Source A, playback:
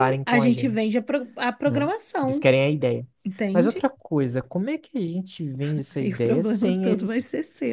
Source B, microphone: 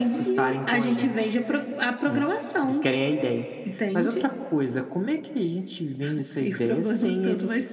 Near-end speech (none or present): none